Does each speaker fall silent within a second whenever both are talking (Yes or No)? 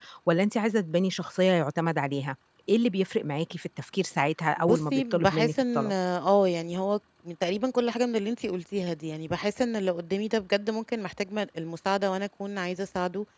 No